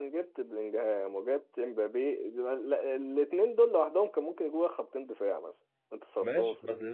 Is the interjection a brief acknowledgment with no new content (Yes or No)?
No